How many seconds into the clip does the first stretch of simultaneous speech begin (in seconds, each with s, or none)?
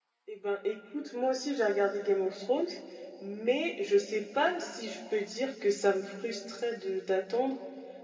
none